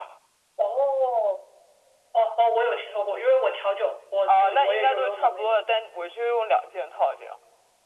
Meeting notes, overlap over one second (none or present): present